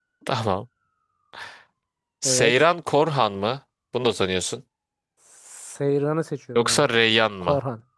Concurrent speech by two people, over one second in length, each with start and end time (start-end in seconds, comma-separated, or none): none